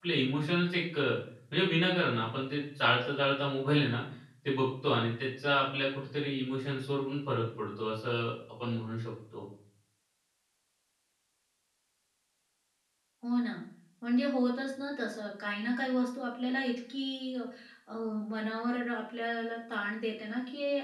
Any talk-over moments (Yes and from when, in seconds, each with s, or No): No